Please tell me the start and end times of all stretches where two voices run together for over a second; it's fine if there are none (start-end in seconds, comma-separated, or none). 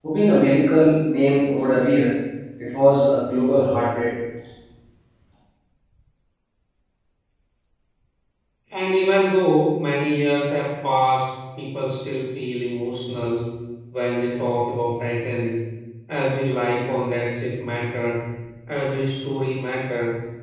none